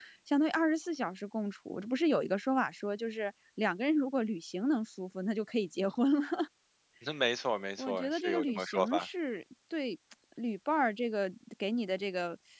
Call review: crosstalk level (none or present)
present